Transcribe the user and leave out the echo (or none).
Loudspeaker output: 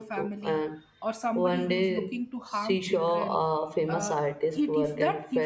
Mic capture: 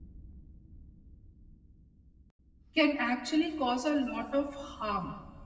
can actually cause a lot of harm